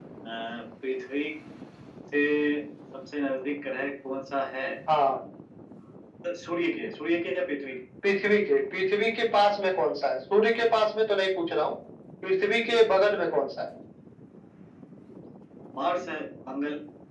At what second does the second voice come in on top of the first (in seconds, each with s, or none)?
none